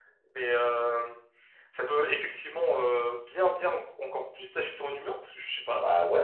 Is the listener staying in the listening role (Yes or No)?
Yes